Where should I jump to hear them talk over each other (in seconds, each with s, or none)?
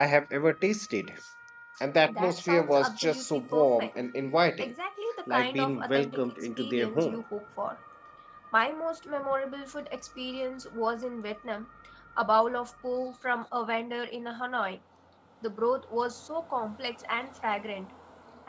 2.1 s